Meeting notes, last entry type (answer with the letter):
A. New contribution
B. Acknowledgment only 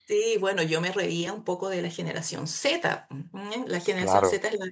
B